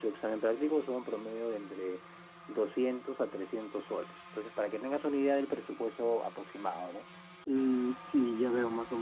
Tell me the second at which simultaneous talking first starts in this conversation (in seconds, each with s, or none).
none